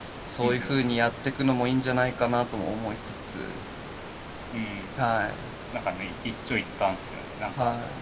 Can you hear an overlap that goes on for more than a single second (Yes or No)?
No